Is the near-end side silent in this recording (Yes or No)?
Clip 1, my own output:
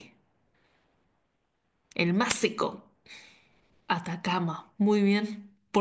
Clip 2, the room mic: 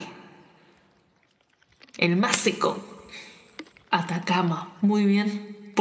Yes